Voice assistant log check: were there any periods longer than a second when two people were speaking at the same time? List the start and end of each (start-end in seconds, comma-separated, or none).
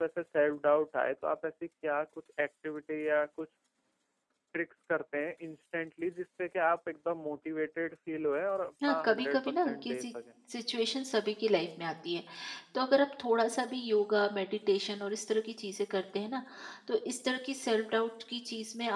8.8-10.1